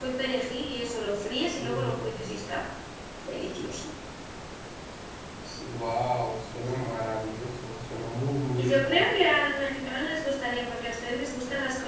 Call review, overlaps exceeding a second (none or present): none